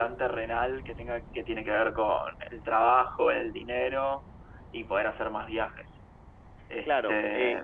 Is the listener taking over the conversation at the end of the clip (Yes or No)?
Yes